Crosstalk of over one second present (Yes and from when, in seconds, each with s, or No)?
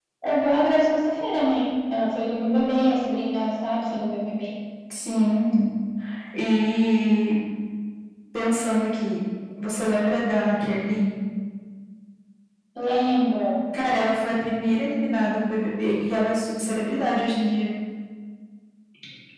No